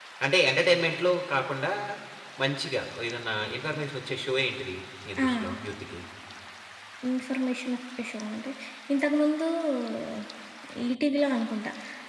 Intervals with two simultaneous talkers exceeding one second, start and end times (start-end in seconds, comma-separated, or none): none